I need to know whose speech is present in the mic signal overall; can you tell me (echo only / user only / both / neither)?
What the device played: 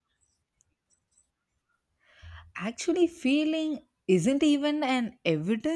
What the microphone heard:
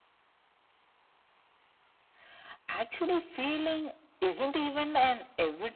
echo only